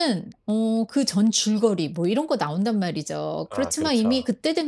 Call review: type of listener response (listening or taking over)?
listening